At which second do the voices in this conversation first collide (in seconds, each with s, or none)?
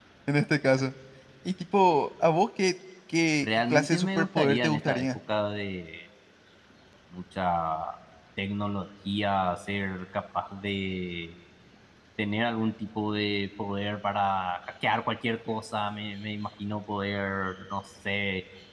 3.4 s